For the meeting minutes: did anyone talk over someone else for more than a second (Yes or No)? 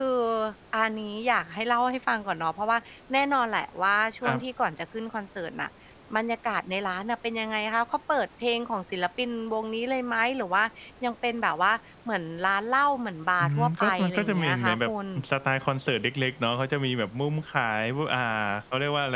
Yes